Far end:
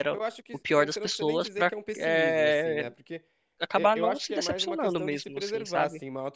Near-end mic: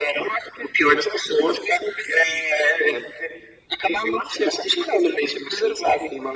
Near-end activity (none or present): none